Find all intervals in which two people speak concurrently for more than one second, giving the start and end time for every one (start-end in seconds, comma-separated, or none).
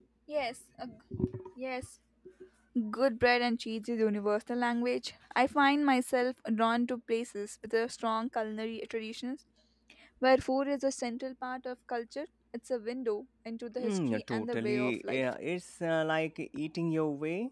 13.8-15.2